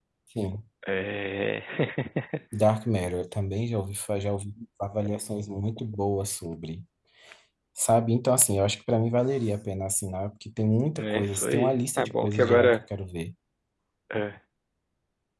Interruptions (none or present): present